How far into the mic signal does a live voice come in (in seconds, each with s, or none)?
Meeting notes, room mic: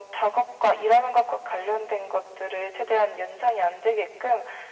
none